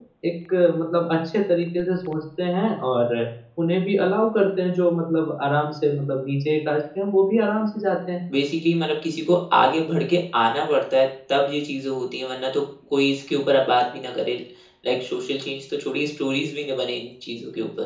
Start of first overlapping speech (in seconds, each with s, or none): none